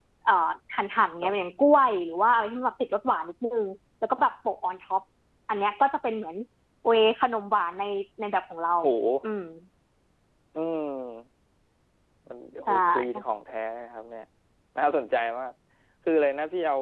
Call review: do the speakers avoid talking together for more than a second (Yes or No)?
Yes